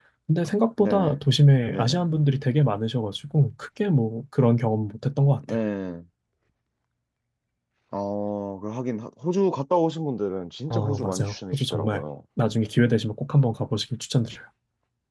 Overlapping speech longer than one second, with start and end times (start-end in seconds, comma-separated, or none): 10.7-12.0